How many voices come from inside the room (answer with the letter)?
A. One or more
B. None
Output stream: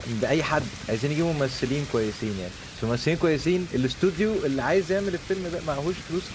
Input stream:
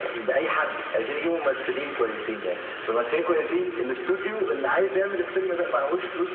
B